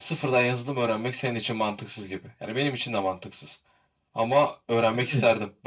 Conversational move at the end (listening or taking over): listening